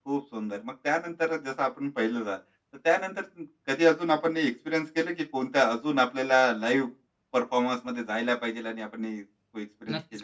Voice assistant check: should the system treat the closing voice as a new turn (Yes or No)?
Yes